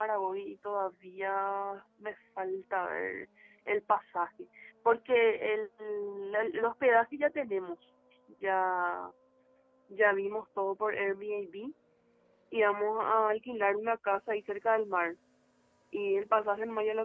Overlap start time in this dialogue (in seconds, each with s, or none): none